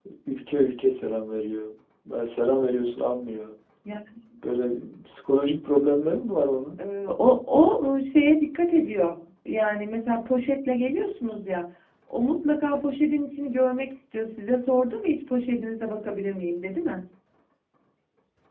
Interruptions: none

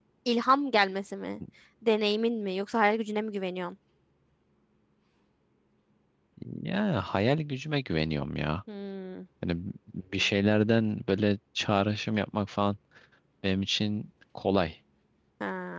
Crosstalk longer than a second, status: none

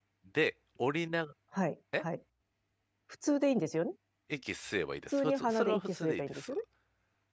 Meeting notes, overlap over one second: present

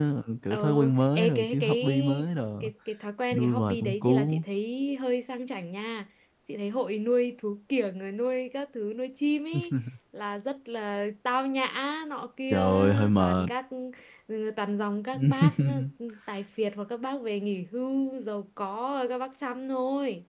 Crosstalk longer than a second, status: present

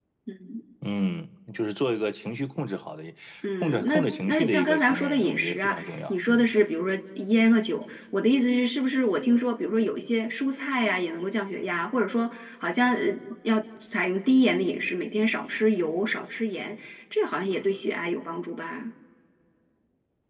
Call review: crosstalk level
present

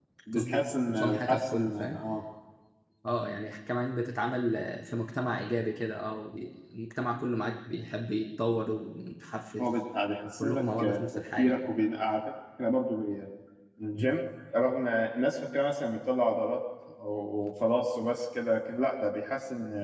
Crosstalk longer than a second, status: present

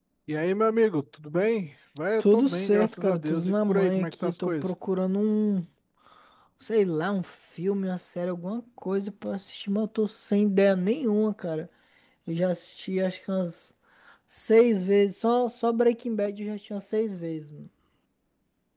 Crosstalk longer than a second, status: present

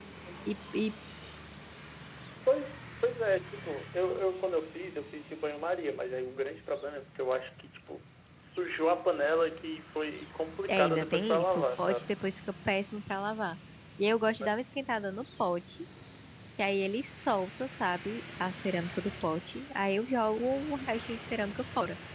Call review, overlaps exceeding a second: present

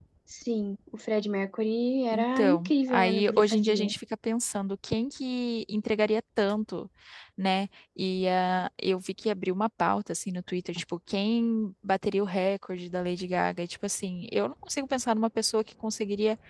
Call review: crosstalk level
present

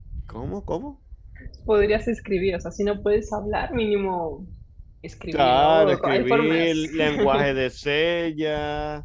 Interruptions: present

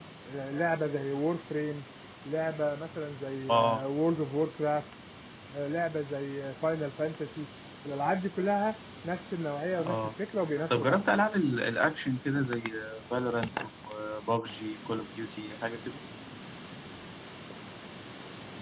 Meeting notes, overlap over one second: none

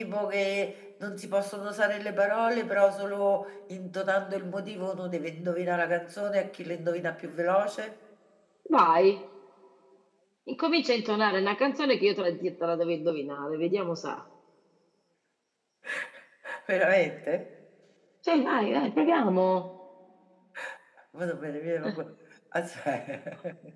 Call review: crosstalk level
none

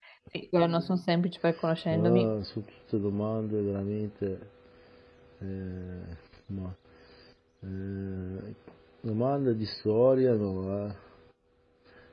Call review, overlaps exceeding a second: none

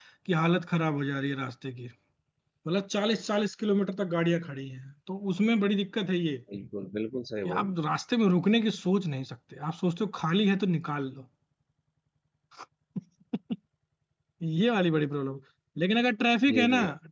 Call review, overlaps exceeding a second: none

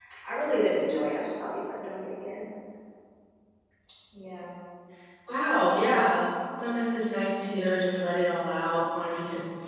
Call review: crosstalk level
none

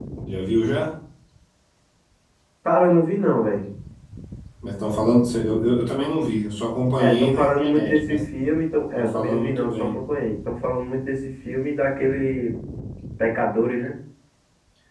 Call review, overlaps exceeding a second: present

